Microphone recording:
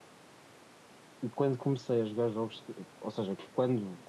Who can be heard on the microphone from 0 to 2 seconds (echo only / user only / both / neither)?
user only